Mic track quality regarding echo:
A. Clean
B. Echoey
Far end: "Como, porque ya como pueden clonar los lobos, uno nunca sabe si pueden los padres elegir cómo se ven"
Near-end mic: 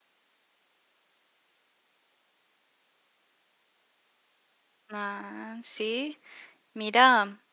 A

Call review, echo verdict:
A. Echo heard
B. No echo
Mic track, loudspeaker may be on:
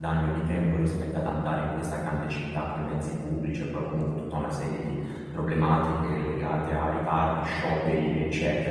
B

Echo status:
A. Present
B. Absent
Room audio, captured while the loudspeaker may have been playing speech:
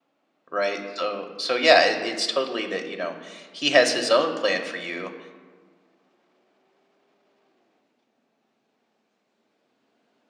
B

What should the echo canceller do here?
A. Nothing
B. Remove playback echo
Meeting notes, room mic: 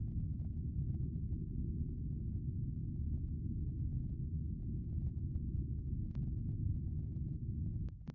A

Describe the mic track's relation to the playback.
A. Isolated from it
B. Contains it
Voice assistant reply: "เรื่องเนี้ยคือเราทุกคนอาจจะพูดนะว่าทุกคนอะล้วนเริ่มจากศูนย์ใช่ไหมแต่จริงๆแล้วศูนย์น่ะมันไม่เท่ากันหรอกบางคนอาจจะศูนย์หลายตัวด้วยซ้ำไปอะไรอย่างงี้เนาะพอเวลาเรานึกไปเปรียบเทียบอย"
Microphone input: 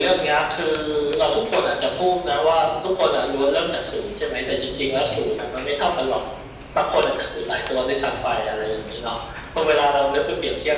B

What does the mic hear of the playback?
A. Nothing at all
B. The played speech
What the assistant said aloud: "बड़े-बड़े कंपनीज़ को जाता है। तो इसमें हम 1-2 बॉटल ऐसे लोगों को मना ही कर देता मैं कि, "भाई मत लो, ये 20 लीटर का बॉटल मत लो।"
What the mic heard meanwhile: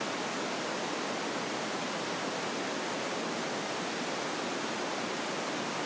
A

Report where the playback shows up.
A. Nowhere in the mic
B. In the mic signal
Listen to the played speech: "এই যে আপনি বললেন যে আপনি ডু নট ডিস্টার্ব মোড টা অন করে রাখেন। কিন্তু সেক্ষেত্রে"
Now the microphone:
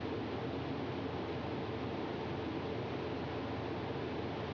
A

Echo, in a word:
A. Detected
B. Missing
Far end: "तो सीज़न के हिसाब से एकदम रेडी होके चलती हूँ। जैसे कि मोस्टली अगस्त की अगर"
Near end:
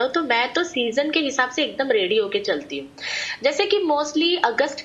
A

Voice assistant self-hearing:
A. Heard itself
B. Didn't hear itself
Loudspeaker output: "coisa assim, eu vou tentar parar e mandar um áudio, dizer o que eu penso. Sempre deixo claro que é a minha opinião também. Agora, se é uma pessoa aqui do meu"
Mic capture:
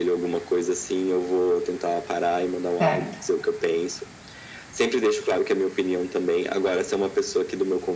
A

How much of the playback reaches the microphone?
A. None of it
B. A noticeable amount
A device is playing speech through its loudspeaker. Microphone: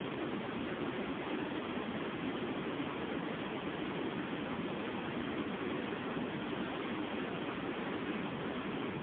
A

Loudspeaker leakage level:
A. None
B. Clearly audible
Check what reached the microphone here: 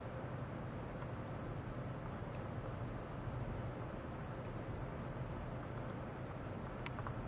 A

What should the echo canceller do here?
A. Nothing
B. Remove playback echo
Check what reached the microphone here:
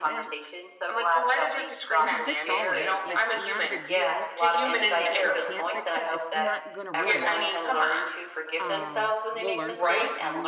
B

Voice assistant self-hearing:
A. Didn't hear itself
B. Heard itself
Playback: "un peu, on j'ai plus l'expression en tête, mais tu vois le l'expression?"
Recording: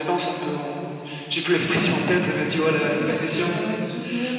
B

